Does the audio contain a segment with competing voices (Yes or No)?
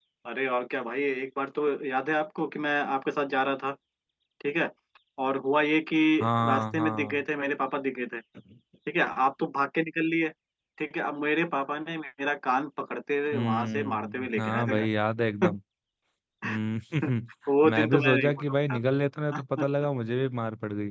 Yes